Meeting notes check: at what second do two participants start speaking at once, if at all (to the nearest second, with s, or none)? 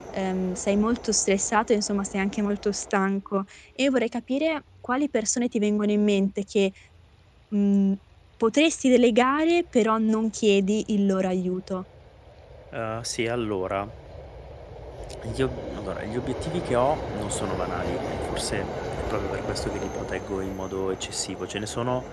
none